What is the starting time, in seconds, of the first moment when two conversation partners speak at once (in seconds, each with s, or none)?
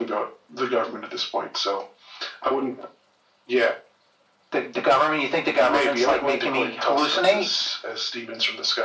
5.6 s